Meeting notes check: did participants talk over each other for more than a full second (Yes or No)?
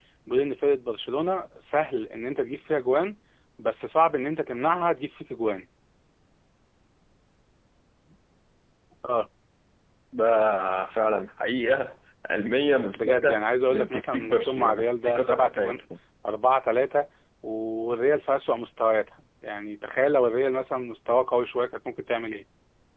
Yes